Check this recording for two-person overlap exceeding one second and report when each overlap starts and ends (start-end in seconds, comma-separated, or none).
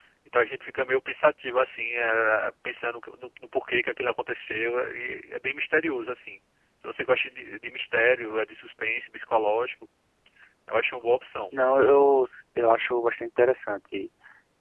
none